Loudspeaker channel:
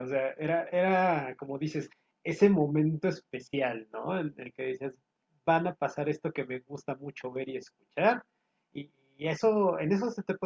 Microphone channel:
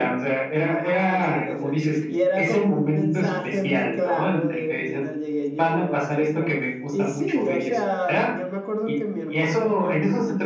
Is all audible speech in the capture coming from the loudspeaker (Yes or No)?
No